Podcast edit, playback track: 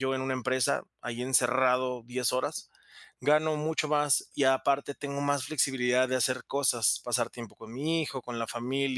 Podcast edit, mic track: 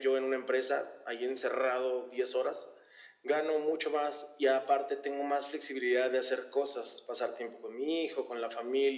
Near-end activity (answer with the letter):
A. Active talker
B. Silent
B